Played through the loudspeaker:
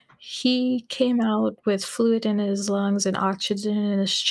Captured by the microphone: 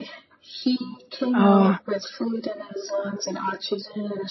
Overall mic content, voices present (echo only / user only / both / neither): both